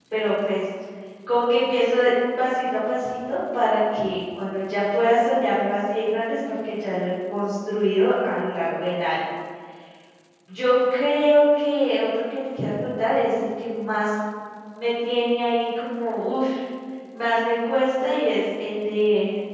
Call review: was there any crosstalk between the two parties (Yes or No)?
No